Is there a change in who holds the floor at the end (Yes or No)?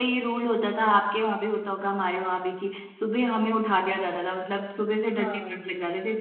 No